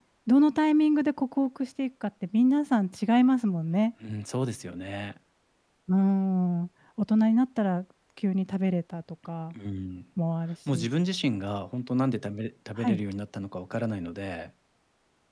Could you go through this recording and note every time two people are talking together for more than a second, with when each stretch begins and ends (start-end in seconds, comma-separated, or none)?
none